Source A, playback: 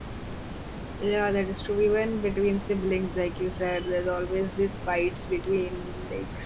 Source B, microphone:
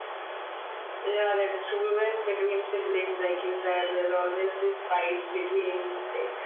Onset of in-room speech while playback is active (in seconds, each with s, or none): none